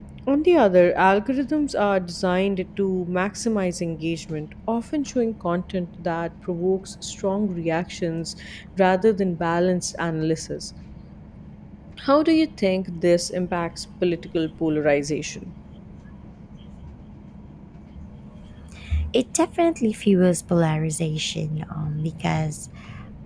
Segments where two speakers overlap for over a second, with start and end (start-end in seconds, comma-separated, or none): none